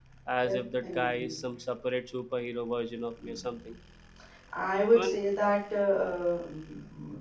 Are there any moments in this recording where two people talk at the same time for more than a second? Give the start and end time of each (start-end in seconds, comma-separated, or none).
none